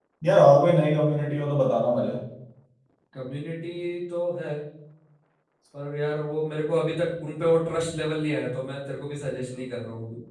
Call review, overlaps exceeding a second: none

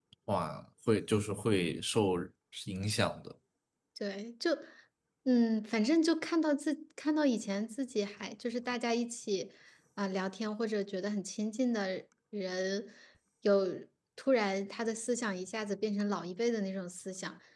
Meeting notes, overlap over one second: none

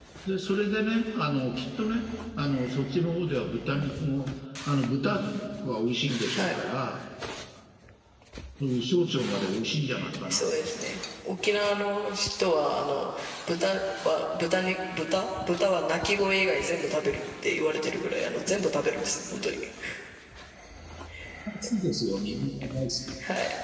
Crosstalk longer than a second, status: none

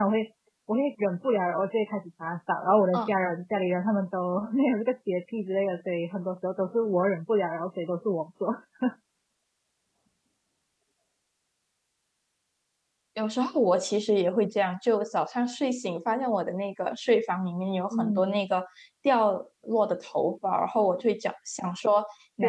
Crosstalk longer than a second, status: none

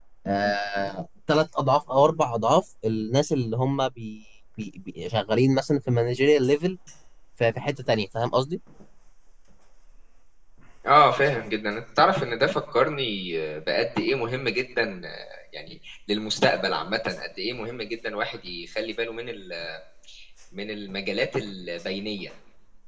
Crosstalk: none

